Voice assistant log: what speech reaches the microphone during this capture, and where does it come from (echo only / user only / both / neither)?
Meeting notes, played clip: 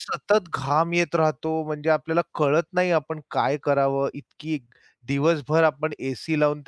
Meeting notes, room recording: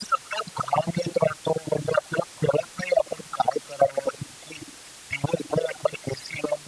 echo only